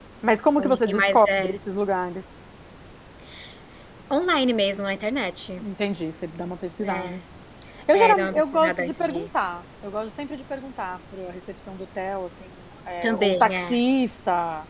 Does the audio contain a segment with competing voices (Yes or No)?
Yes